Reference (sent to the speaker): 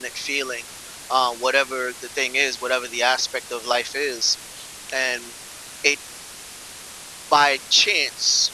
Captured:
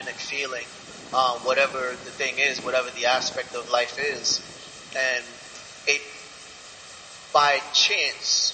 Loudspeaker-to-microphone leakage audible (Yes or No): Yes